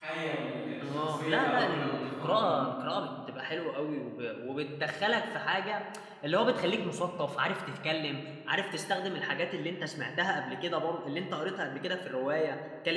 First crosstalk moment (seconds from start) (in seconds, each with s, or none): 0.8 s